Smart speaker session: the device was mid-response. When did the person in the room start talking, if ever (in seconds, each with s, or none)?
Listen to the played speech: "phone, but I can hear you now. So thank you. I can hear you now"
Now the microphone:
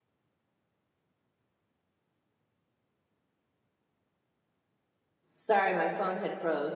5.3 s